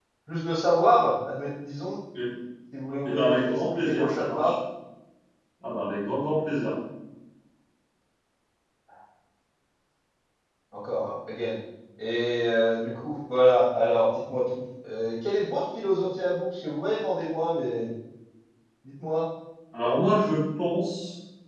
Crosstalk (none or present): present